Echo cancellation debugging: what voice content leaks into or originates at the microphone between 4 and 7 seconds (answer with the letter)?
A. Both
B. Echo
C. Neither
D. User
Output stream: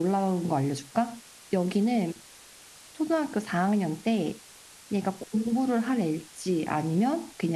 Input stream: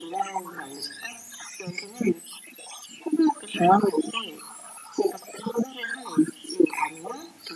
B